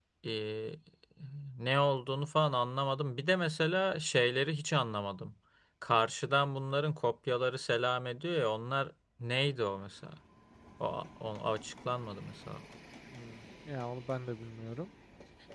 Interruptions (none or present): none